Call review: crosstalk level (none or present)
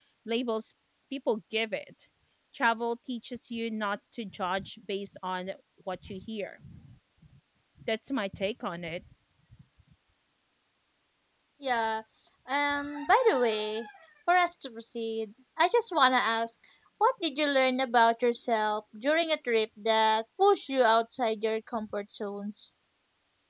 none